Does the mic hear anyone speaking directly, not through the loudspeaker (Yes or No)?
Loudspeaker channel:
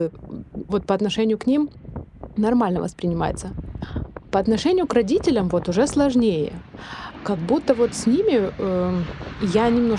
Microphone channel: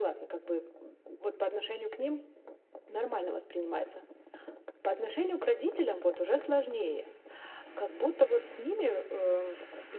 No